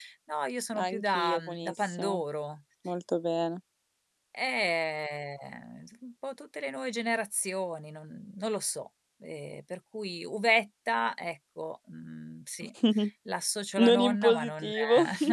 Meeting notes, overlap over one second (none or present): present